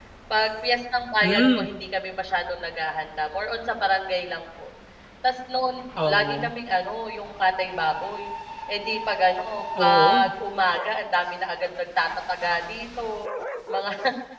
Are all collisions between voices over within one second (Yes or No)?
Yes